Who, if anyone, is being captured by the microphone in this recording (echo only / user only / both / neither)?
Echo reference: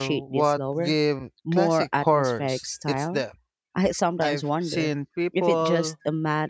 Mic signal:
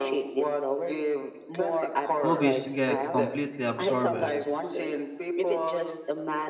both